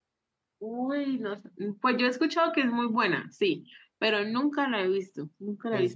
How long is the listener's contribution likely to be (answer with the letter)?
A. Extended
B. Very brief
A